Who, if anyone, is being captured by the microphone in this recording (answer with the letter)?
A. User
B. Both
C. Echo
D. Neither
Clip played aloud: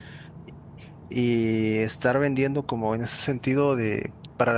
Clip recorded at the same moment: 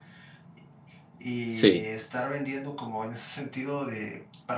B